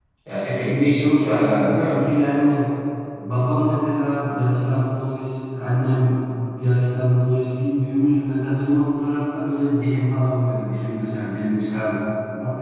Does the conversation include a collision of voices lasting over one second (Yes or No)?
Yes